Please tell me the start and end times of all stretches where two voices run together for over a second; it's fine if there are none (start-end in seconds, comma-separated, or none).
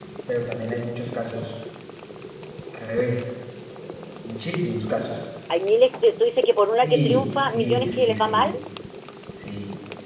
6.8-8.5